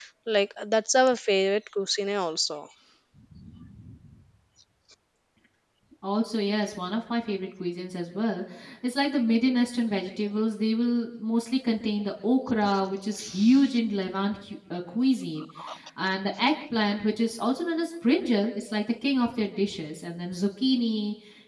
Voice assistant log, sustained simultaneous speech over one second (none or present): none